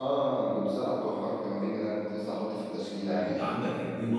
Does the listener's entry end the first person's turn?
Yes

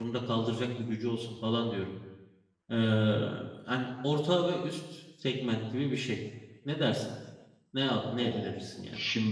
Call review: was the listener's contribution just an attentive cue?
No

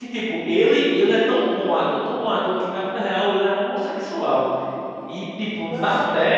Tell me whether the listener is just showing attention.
Yes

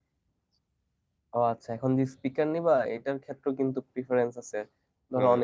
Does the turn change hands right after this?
No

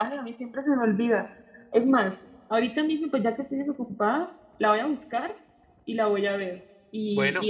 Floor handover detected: No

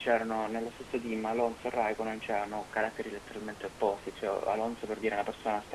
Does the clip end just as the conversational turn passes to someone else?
No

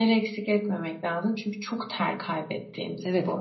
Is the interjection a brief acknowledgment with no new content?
No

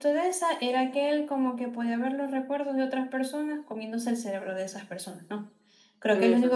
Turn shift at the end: No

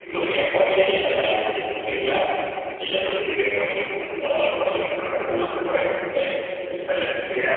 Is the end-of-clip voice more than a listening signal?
Yes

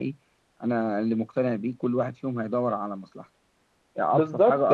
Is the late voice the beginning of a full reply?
Yes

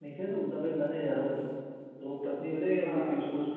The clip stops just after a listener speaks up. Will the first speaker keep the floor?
Yes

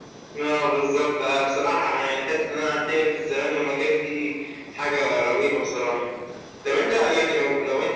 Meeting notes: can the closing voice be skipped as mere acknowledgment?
Yes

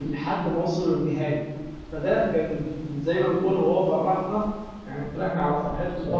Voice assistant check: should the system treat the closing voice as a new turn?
No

